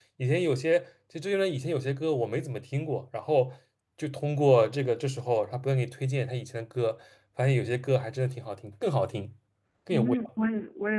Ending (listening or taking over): taking over